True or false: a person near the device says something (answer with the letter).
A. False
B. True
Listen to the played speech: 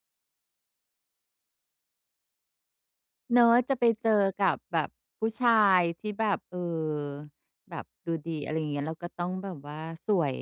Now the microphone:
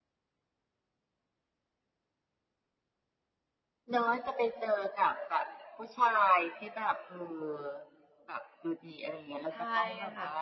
B